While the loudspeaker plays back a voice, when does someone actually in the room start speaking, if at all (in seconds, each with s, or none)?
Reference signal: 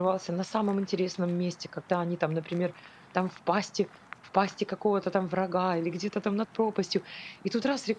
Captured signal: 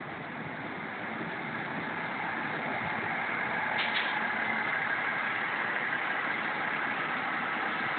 none